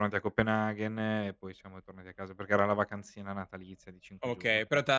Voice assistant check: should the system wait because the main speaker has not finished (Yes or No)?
No